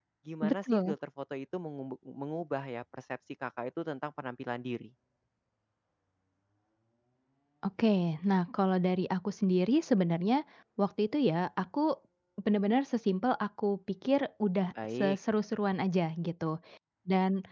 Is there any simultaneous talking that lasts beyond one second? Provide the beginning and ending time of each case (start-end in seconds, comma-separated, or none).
none